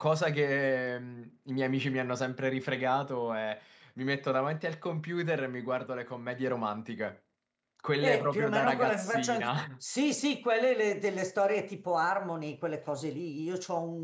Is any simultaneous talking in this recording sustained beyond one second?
Yes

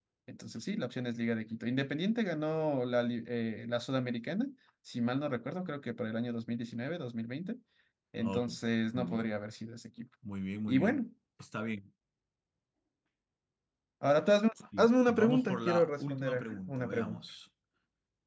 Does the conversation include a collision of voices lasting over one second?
Yes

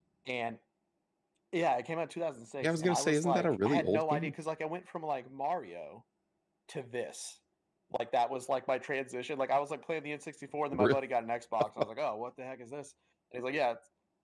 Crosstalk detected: Yes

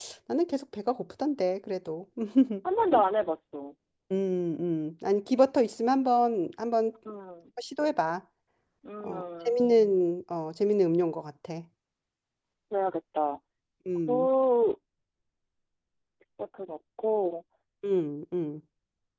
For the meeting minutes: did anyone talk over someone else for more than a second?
No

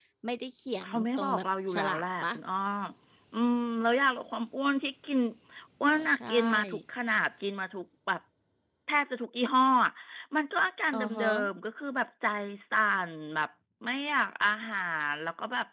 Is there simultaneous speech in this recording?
Yes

